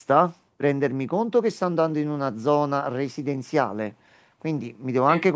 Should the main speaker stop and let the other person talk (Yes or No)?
No